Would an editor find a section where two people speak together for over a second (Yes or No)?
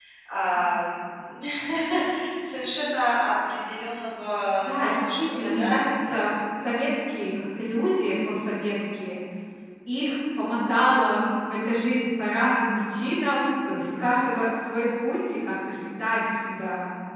Yes